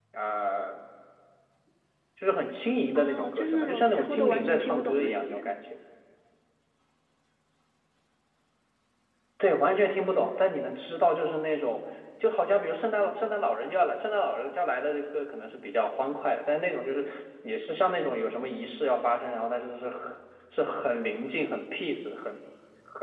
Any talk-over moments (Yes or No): Yes